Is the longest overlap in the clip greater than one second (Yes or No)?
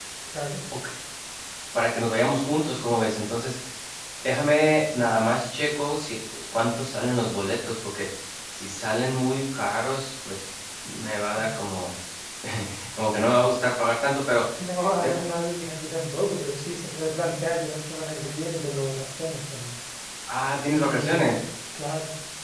No